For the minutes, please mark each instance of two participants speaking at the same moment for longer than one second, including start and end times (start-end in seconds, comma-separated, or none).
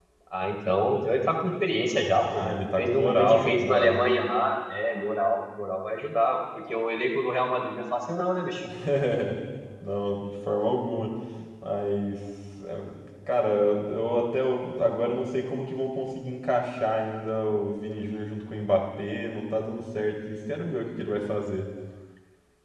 2.3-4.0